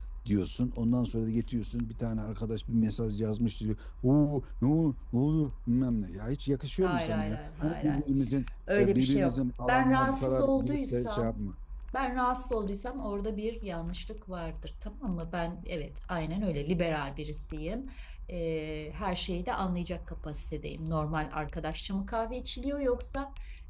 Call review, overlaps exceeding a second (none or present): present